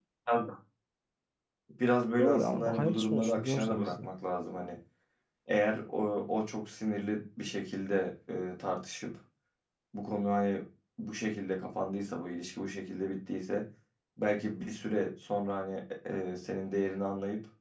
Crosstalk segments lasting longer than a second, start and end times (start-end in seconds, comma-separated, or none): 2.2-4.1